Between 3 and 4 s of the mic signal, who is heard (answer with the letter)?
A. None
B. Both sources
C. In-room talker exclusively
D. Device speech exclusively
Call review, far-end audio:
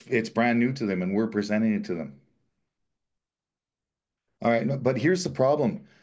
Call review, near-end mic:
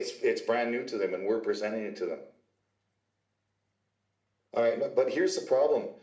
A